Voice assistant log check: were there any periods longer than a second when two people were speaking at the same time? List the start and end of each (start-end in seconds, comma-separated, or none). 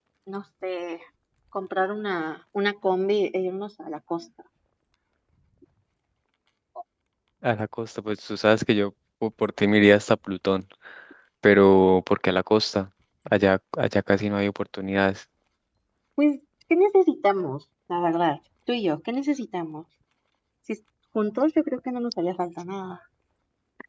none